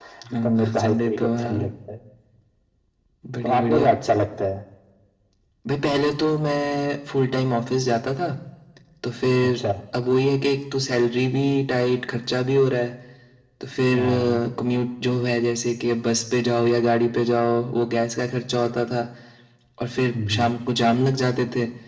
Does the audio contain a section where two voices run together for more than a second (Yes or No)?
Yes